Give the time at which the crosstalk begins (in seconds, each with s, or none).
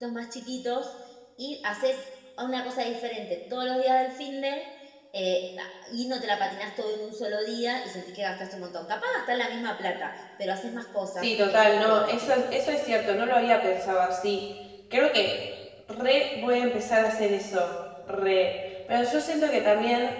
11.2 s